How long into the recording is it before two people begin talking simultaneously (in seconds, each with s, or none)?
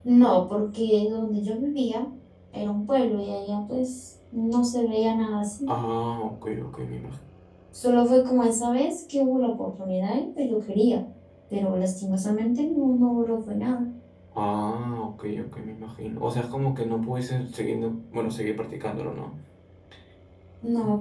none